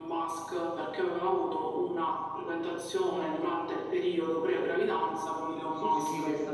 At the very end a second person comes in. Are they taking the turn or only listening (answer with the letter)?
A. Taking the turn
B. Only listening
A